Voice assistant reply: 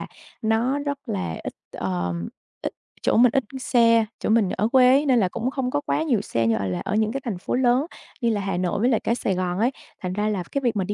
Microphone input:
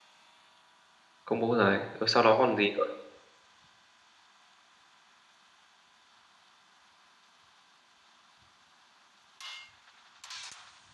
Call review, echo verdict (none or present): none